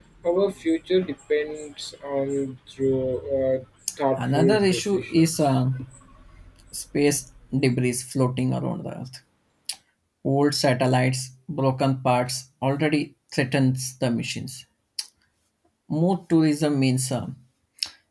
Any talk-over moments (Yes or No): Yes